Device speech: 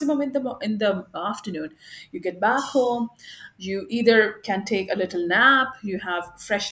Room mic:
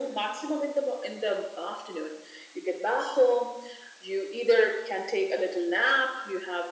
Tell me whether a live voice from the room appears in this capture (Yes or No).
No